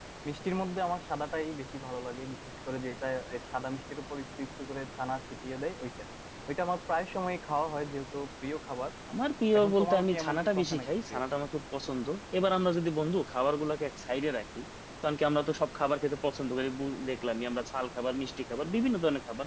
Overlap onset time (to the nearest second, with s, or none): 10 s